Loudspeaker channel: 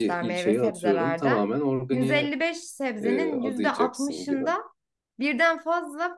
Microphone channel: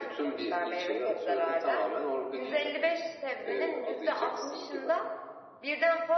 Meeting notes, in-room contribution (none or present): none